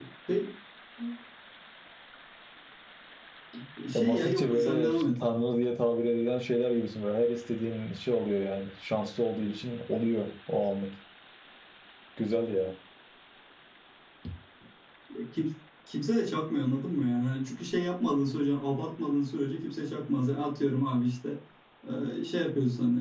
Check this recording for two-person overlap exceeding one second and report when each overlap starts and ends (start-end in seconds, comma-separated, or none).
3.9-5.2